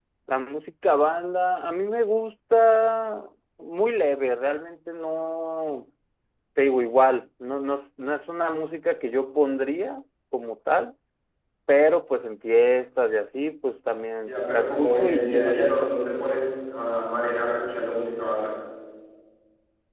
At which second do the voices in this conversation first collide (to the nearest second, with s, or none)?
14 s